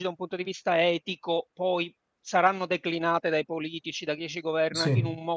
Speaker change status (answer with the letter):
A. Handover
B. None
B